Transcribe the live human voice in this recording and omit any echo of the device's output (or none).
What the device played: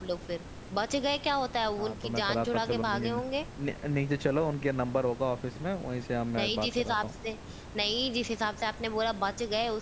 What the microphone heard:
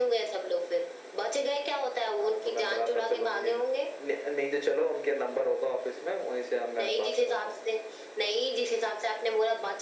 none